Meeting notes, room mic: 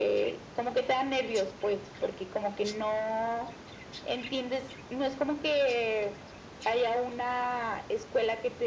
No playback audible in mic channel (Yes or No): No